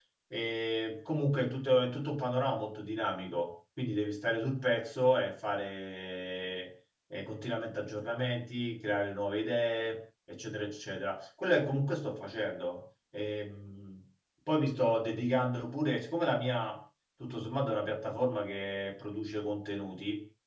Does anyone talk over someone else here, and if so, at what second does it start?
none

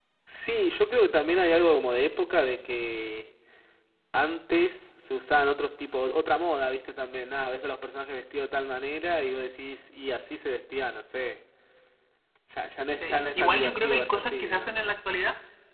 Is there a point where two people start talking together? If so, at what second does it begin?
13.0 s

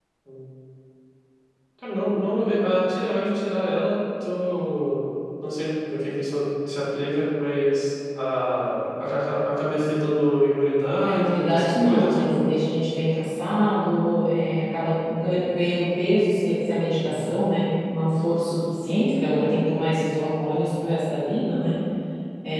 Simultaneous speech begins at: 11.0 s

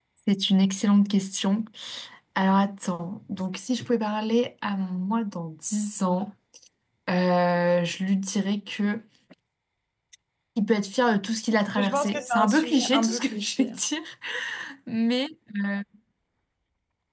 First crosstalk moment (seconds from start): 11.8 s

